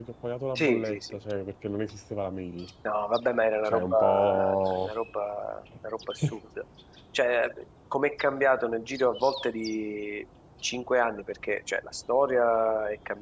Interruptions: present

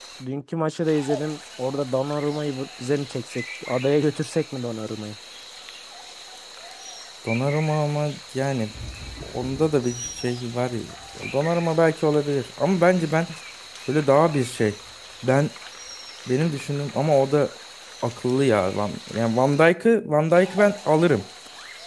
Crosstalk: none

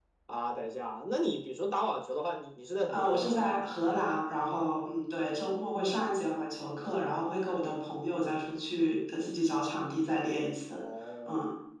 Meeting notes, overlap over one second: none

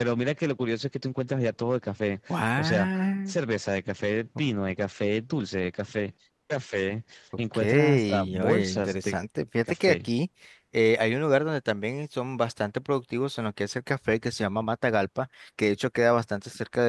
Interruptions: present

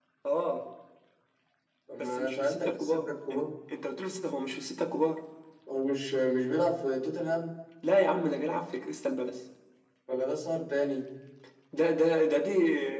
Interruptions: present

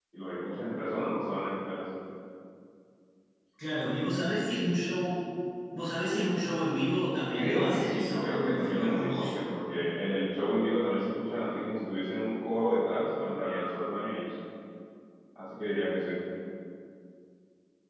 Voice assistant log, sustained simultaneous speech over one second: present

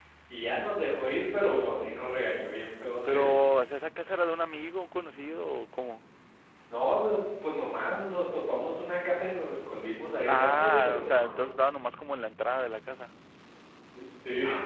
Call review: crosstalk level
present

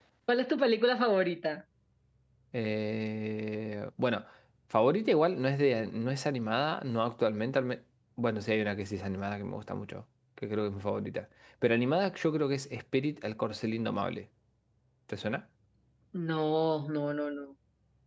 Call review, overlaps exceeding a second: none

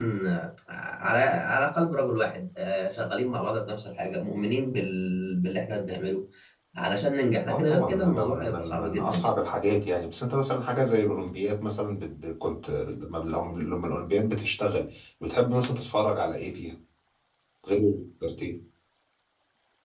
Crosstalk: present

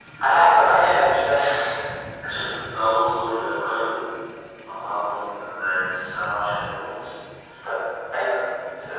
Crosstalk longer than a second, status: none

